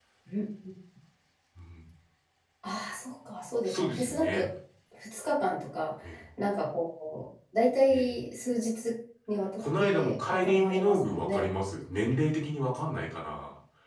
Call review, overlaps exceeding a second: present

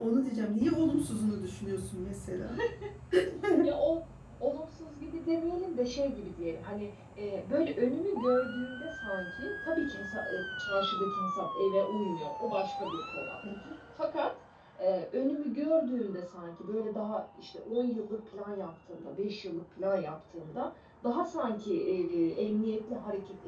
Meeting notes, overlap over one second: none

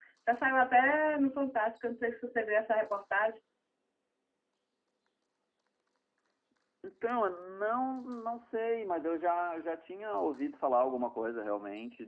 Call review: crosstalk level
none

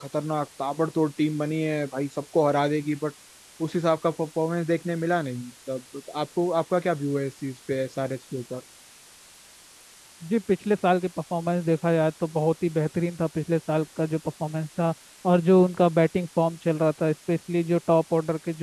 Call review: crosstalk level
none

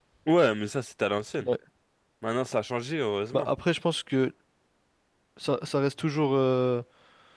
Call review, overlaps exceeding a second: none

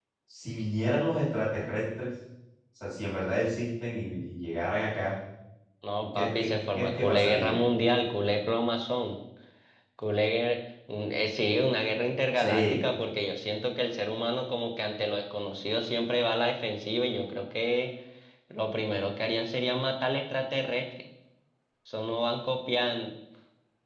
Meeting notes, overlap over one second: present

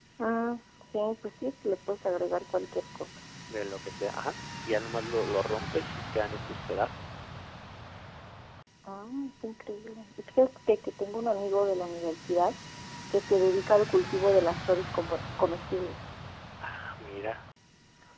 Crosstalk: none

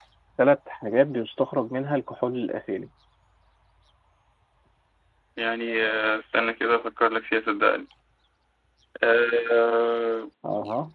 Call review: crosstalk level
none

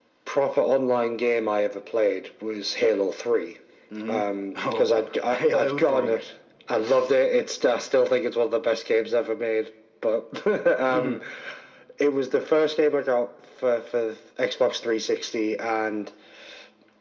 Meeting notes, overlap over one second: present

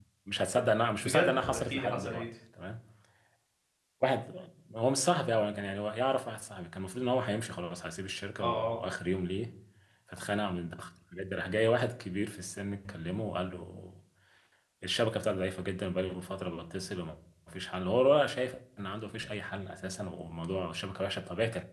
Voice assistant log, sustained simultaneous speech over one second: present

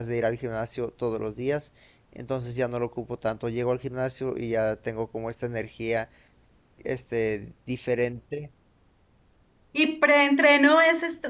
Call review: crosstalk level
none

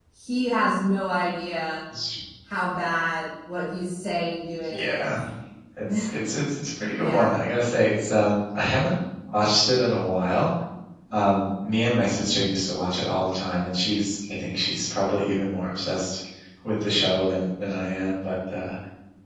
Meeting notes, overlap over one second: none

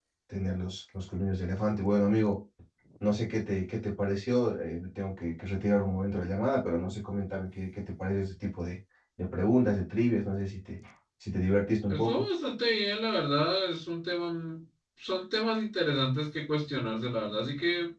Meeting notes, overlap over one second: none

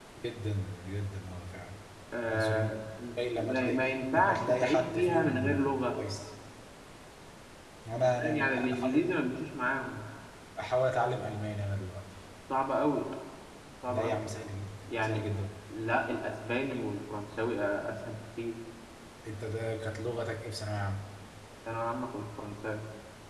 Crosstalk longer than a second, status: present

